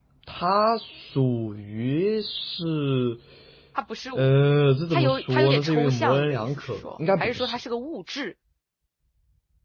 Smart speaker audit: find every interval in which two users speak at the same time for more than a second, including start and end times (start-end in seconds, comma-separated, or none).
4.9-7.6